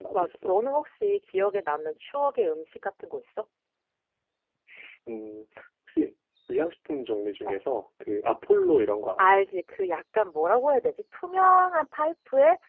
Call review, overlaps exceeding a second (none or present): none